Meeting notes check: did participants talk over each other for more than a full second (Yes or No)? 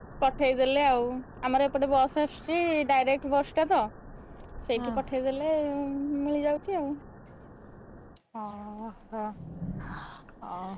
No